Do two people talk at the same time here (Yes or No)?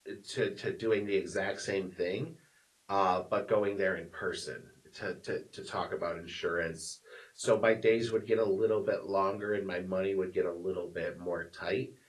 No